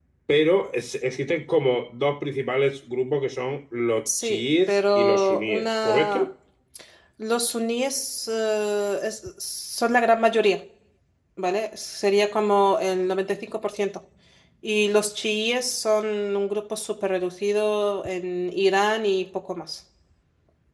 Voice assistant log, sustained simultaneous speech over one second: present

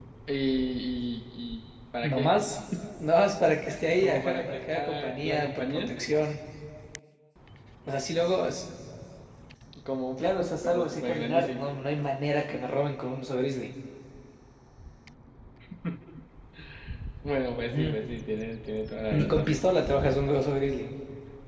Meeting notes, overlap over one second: present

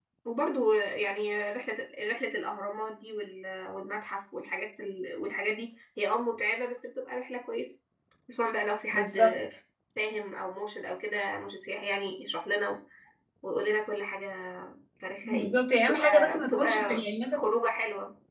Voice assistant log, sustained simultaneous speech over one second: present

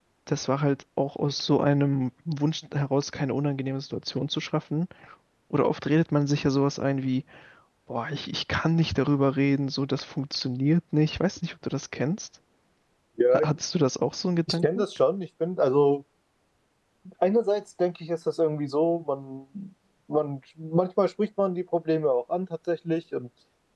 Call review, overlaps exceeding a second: none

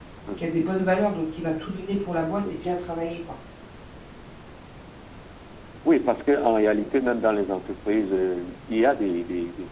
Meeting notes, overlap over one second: none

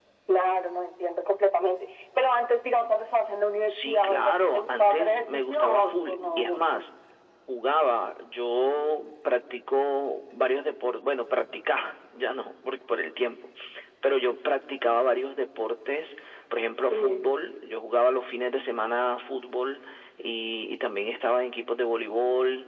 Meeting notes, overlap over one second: present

